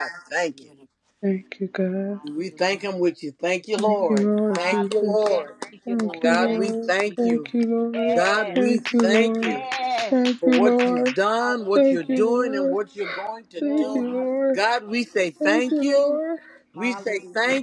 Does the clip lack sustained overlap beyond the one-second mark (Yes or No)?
No